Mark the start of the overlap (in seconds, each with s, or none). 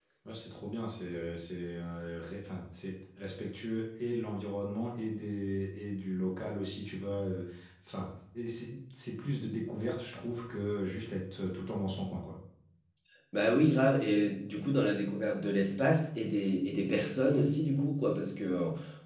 none